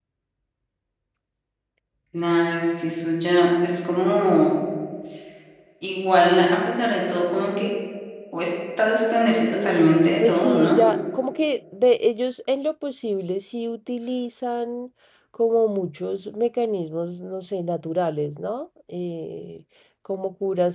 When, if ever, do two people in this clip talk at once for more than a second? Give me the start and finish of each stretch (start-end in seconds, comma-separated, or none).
9.5-10.7